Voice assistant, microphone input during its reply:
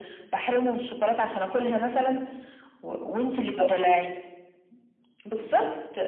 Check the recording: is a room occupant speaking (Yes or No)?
Yes